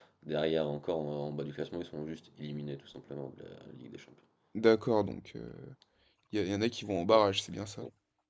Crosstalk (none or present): none